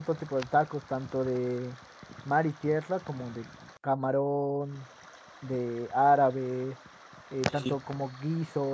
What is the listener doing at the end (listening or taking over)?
listening